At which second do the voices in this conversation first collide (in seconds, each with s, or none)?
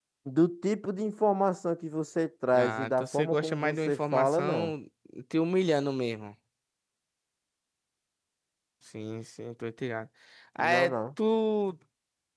2.6 s